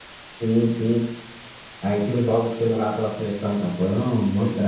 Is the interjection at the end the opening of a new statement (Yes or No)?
Yes